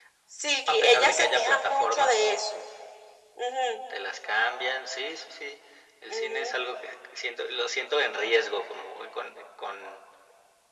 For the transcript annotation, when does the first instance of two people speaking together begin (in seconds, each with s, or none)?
0.7 s